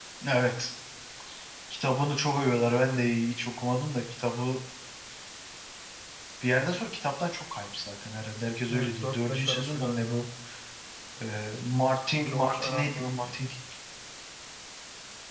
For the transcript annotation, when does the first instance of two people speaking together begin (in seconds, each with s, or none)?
8.7 s